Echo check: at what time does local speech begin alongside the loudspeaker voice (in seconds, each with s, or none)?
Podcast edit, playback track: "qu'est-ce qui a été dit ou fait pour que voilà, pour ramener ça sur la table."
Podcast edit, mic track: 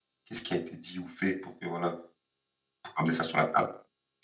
none